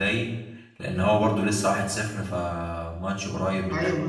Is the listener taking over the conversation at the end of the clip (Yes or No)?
Yes